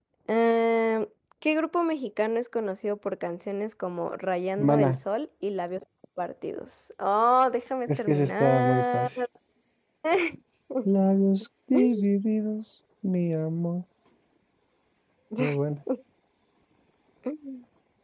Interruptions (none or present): present